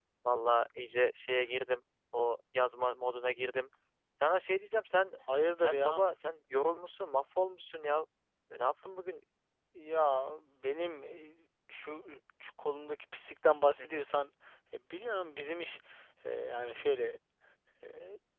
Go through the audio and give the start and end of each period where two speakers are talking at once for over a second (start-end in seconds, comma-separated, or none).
none